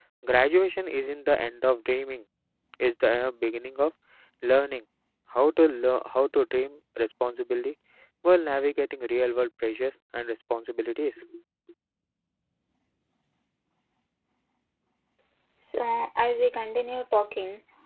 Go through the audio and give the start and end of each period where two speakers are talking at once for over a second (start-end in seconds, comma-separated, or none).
none